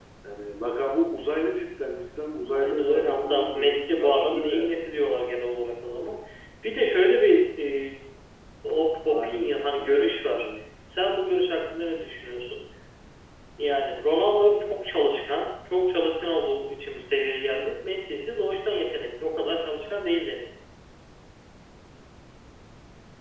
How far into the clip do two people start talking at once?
2.5 s

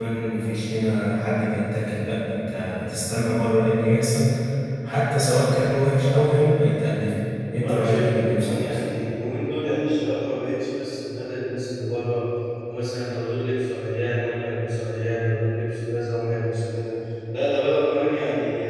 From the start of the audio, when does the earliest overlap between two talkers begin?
7.5 s

